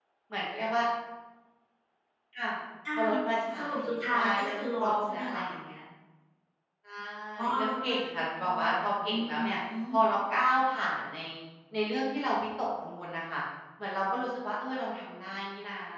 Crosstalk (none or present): present